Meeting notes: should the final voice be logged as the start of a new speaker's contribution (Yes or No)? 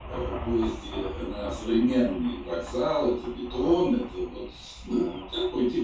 No